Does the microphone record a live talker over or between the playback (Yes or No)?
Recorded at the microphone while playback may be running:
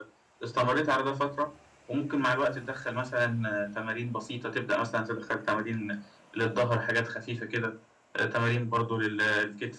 Yes